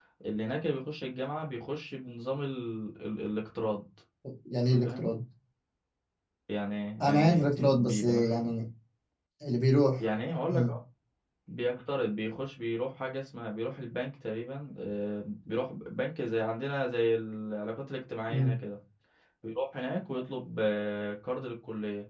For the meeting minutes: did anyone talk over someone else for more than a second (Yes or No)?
Yes